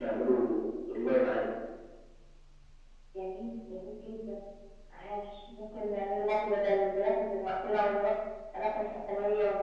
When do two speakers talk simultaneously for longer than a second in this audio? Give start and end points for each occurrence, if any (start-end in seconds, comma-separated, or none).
none